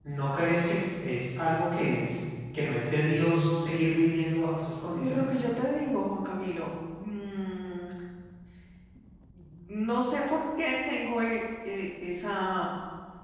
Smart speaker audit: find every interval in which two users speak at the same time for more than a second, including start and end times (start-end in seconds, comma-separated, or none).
none